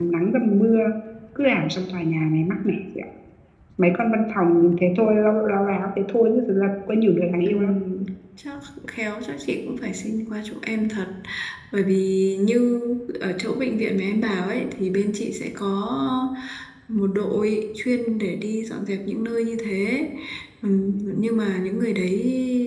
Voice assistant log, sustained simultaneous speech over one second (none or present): none